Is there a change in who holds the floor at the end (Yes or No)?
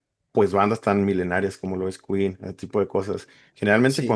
No